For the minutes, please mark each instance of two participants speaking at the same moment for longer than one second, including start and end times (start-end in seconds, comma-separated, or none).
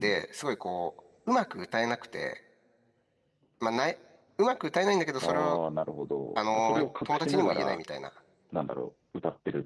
6.4-7.8